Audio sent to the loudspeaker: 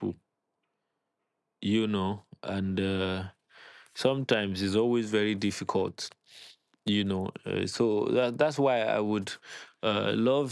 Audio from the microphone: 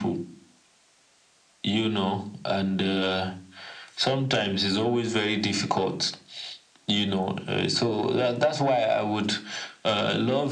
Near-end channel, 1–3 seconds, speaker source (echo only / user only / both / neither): echo only